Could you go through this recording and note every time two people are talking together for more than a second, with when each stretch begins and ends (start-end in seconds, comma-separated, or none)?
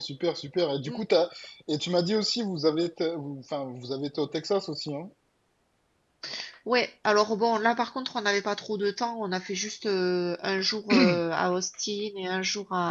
none